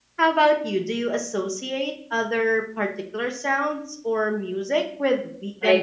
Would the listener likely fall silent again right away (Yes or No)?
No